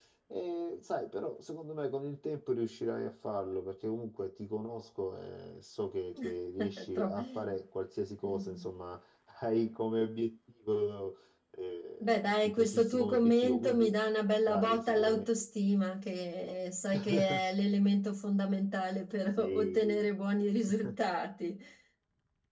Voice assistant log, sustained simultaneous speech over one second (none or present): present